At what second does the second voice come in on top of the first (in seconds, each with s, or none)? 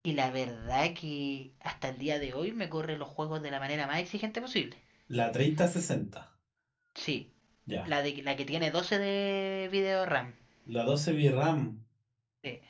none